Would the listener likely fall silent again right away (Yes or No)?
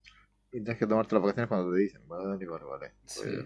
No